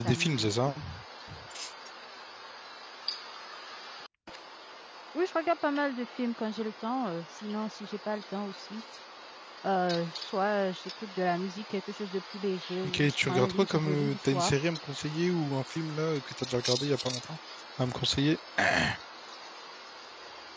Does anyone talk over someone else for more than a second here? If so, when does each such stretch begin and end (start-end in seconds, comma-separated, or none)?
12.8-14.6